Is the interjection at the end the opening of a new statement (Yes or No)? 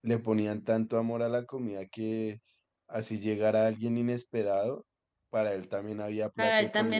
Yes